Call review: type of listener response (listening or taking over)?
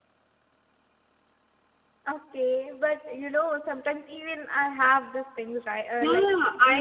taking over